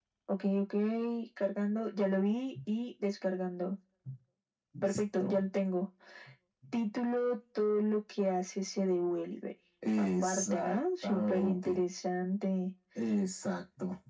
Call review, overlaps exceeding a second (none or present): present